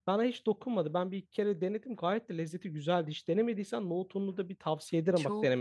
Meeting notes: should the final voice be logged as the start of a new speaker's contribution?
Yes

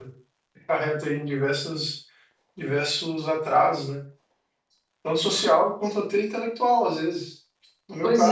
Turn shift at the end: No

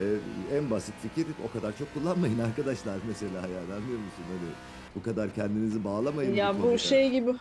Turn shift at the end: Yes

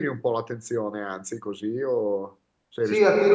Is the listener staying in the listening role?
No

